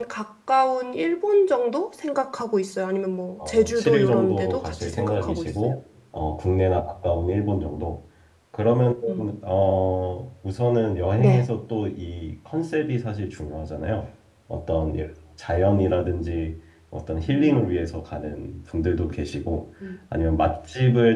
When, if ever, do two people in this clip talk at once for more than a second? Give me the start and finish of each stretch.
3.5-5.5

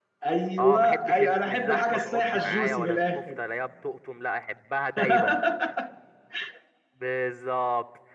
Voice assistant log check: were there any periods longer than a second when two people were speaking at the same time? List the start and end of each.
0.6-3.4

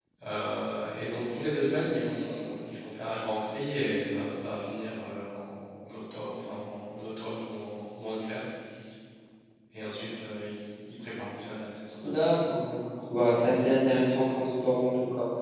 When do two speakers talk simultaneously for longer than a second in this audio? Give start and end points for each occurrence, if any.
none

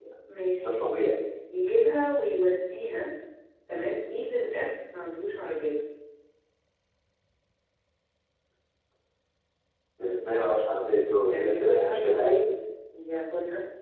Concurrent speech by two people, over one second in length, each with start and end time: 11.2-12.4

